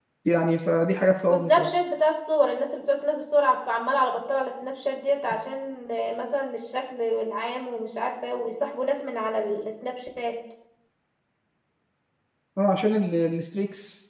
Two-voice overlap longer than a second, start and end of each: none

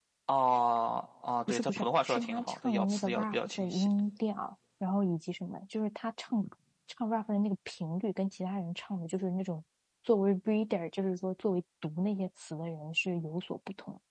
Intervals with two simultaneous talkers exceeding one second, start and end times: 1.5-3.9

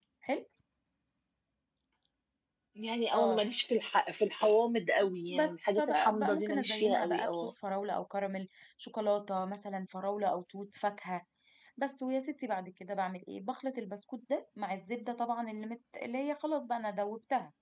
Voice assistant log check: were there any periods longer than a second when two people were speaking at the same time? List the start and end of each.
5.3-7.5

